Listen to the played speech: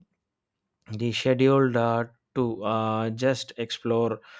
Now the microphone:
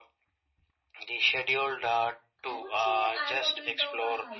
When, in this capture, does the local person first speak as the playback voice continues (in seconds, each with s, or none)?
2.5 s